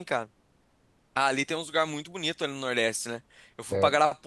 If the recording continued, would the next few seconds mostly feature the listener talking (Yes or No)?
No